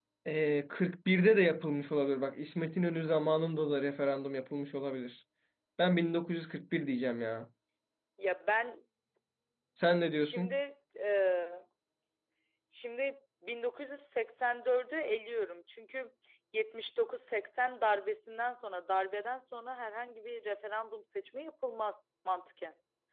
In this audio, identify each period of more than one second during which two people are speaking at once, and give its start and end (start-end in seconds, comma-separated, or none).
none